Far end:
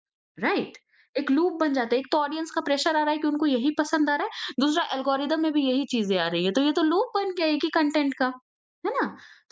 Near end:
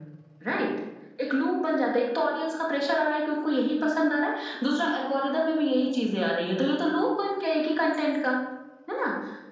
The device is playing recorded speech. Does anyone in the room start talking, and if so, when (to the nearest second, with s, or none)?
none